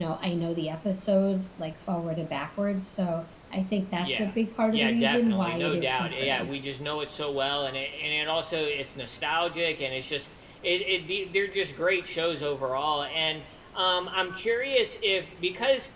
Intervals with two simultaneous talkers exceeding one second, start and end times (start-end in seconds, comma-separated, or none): 4.7-6.5